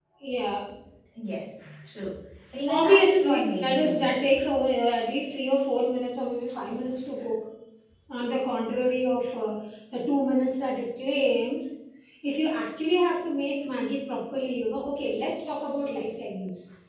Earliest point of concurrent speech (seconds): 2.7 s

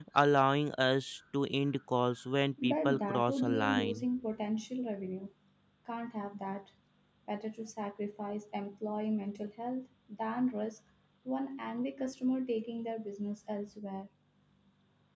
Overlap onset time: 2.6 s

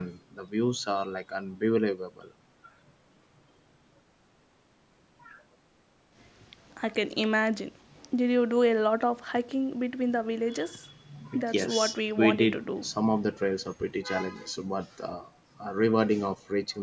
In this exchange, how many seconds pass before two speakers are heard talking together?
11.5 s

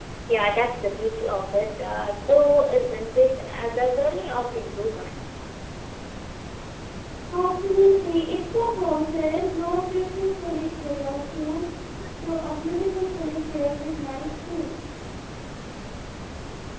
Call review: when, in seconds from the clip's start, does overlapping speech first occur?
none

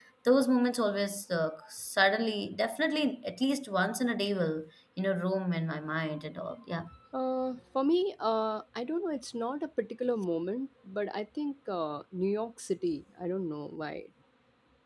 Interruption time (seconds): none

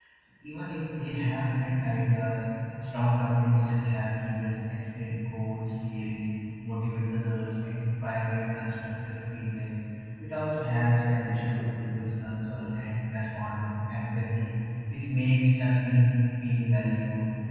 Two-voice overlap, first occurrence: none

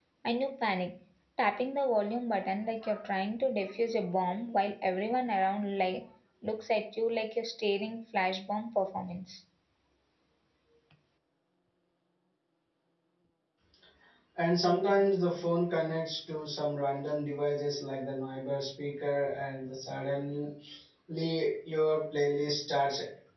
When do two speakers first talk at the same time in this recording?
none

